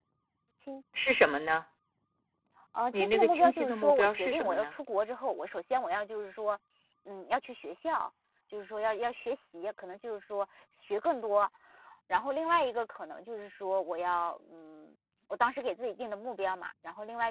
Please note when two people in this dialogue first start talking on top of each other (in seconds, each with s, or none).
2.9 s